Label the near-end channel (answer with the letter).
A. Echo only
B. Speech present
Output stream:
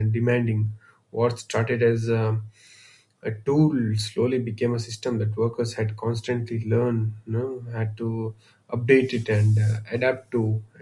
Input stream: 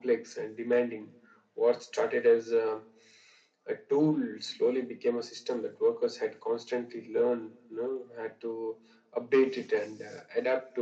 A